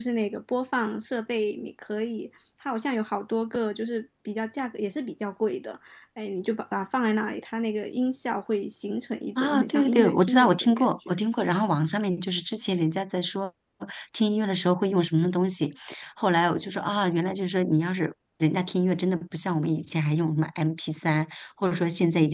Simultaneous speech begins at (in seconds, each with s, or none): 9.4 s